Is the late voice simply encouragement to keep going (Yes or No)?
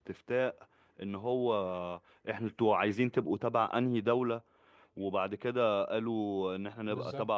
Yes